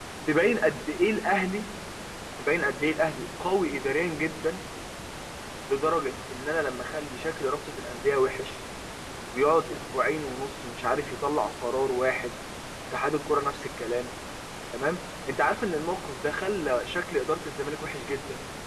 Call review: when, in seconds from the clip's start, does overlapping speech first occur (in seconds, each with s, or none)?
none